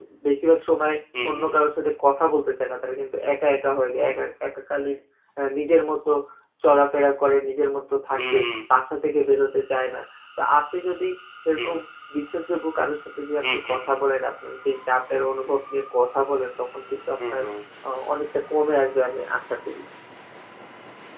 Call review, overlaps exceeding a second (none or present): none